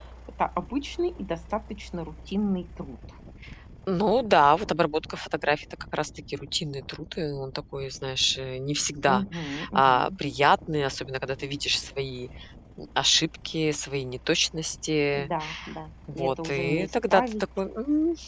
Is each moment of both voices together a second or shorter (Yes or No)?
No